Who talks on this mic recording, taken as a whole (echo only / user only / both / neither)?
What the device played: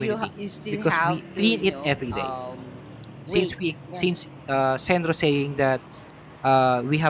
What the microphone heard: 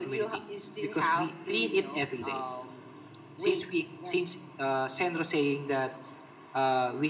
echo only